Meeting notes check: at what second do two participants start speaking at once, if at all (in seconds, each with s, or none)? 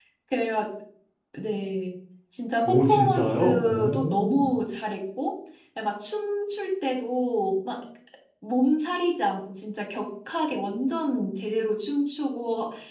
2.6 s